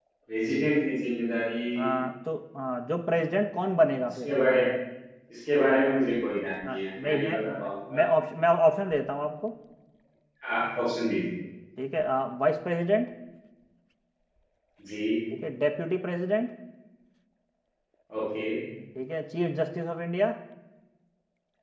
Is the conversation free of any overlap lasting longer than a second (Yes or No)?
No